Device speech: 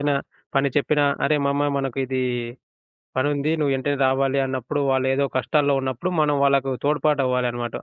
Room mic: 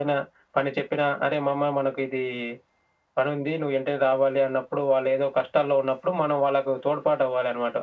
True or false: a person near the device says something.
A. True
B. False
B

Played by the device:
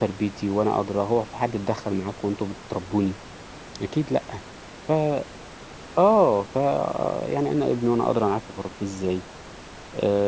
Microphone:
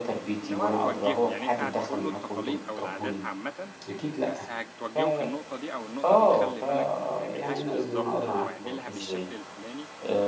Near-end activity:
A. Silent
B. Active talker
B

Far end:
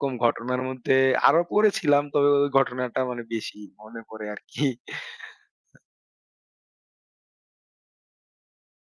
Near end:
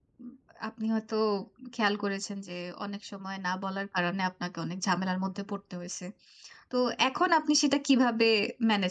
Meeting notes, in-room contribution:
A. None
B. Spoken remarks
B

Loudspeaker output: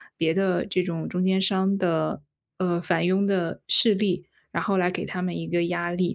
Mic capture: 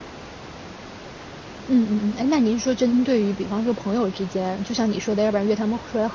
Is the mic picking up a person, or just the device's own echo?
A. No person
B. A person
B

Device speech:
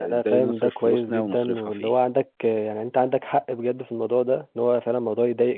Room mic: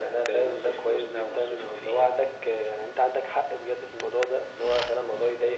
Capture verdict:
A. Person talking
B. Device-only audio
B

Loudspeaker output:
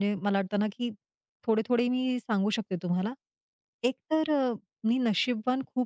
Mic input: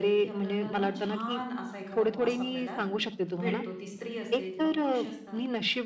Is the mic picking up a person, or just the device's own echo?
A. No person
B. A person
B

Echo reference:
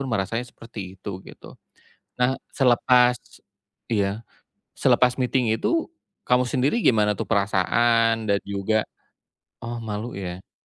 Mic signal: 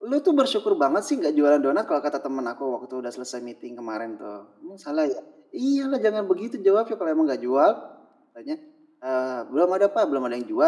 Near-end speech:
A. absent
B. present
B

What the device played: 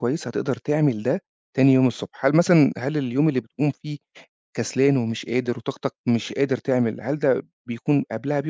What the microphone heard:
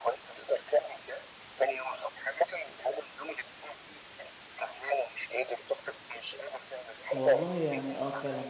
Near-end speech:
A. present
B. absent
A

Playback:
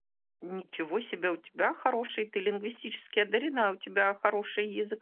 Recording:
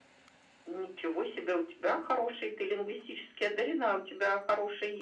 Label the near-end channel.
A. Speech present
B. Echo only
B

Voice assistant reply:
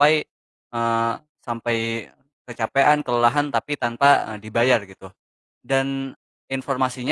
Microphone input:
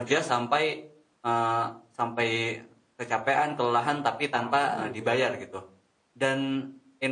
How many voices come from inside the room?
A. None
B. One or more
B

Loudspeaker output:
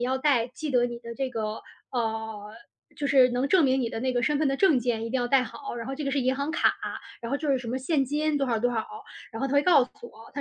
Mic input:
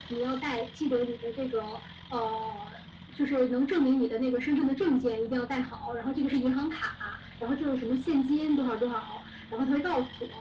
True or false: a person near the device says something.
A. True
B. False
B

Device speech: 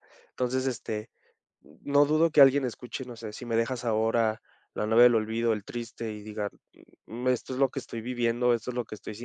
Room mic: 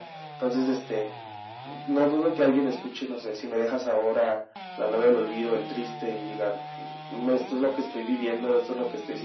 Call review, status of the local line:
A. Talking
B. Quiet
B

